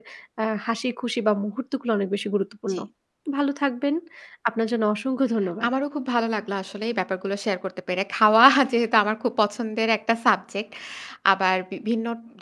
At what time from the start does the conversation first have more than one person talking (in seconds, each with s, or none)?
none